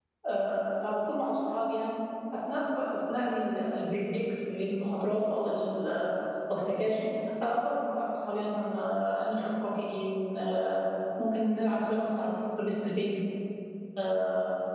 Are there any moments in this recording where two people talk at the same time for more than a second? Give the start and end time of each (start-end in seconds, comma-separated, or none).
none